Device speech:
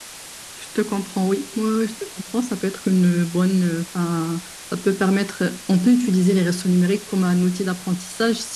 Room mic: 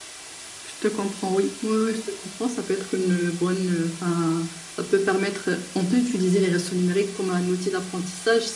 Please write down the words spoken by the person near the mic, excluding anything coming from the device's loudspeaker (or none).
none